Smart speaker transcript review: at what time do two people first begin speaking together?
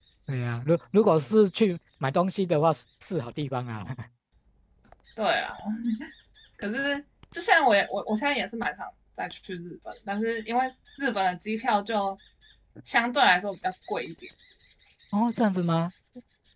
none

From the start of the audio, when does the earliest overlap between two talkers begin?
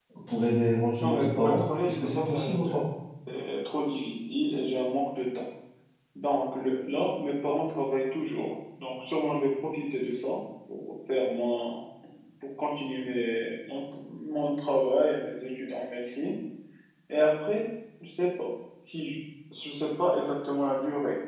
1.0 s

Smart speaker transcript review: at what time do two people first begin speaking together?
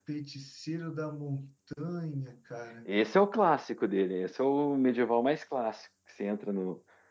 none

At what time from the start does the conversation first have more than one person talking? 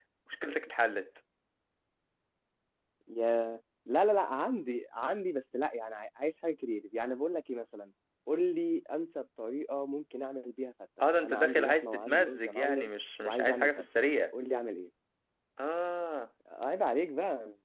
11.0 s

